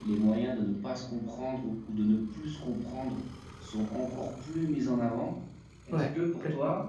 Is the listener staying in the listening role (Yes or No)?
Yes